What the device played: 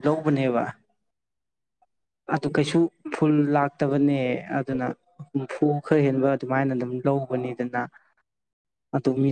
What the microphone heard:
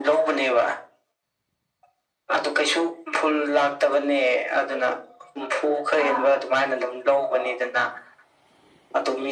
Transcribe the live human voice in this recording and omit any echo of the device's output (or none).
ꯀꯥ